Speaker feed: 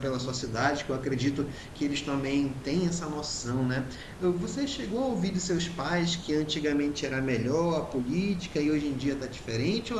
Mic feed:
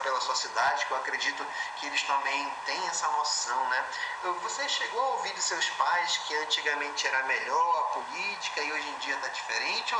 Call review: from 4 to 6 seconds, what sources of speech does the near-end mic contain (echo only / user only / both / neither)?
echo only